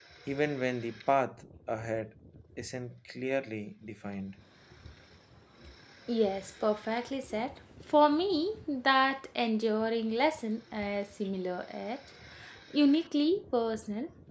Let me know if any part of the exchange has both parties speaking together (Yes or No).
No